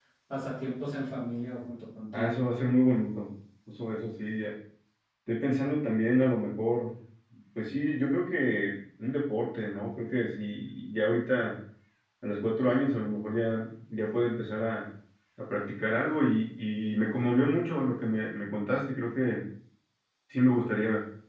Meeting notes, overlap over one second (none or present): none